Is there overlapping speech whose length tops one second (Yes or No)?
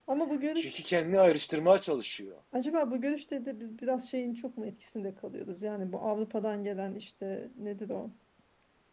No